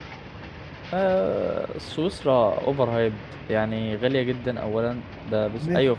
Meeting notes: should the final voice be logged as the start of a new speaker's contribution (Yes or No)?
No